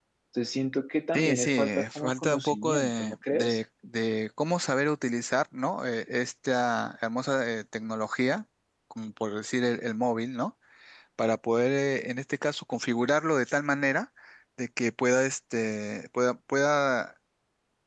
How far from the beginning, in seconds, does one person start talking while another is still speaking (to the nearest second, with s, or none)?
1 s